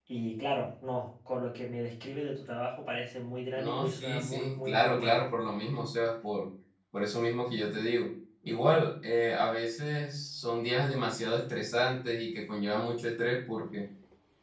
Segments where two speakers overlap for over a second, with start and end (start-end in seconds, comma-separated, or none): 3.6-5.2